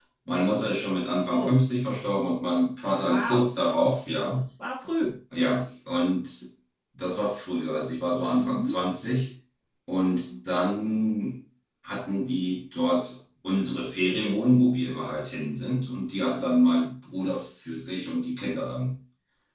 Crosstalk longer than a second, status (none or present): none